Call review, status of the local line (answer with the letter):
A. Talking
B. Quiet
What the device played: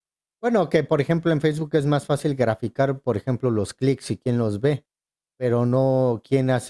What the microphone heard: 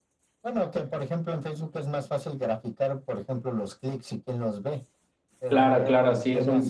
A